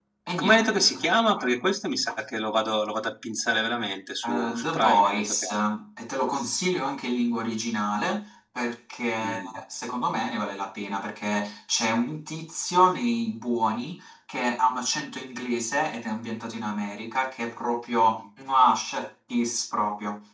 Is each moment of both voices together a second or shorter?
No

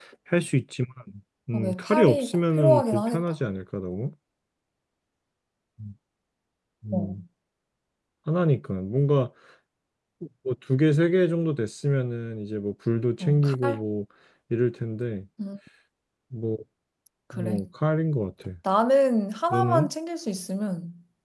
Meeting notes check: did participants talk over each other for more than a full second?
Yes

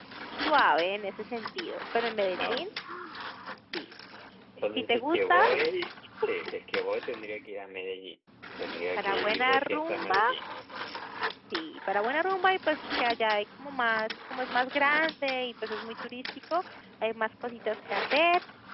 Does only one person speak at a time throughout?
No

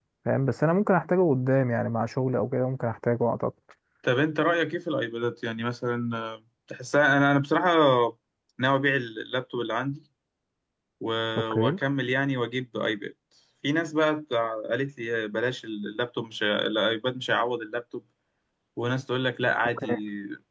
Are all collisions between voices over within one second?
Yes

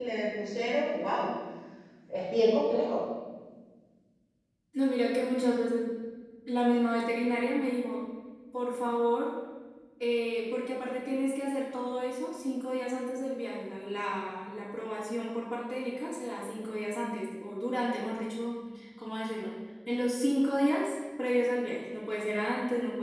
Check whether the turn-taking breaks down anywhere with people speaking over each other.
No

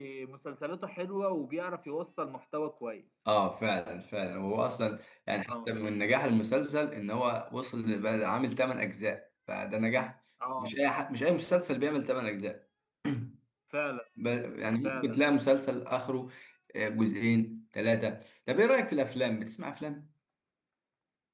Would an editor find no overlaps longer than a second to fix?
Yes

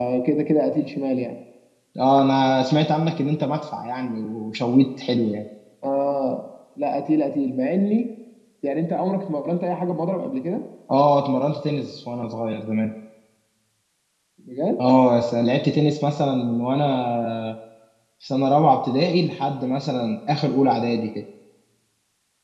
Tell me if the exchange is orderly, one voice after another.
Yes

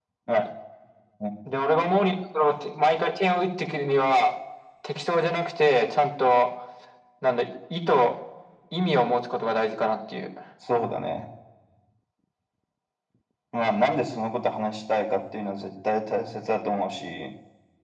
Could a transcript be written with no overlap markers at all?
Yes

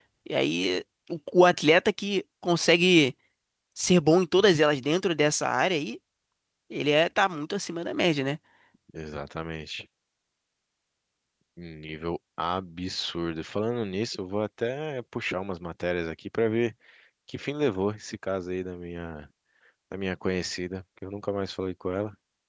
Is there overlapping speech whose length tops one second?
No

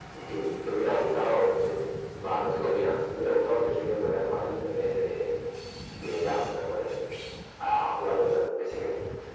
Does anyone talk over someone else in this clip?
No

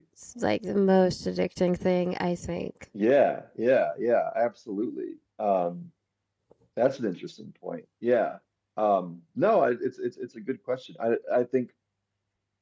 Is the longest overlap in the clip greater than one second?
No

